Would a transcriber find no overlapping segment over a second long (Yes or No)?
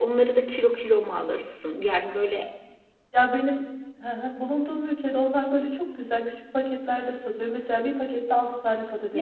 Yes